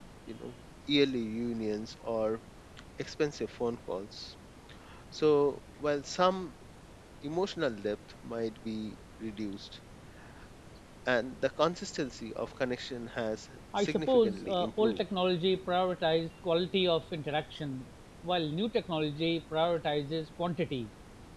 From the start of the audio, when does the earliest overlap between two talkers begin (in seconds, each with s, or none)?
13.7 s